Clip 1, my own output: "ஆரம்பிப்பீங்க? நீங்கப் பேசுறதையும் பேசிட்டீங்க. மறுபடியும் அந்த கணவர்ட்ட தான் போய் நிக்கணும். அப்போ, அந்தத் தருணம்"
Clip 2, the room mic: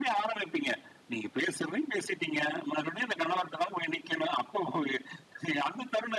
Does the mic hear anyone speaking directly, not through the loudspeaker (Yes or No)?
No